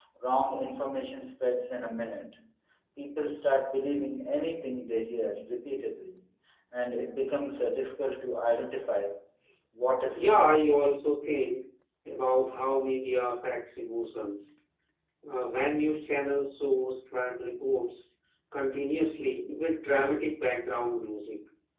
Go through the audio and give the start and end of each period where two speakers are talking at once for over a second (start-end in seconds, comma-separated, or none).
none